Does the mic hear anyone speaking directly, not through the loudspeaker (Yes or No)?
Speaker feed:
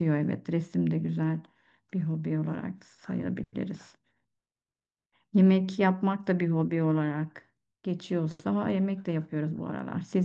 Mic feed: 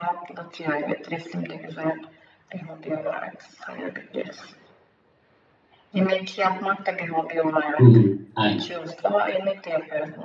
Yes